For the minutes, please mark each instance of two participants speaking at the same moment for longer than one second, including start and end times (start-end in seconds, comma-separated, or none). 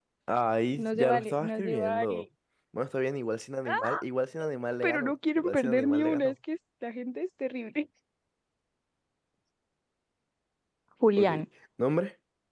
0.8-2.2, 4.8-6.3